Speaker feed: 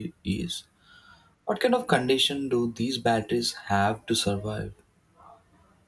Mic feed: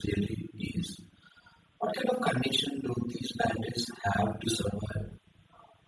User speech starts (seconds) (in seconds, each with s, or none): none